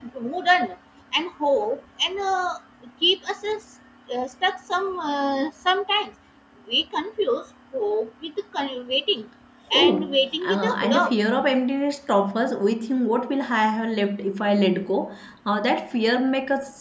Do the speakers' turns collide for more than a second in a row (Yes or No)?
Yes